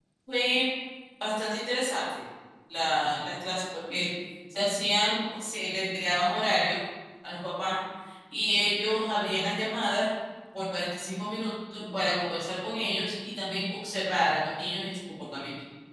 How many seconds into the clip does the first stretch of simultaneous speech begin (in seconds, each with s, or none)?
none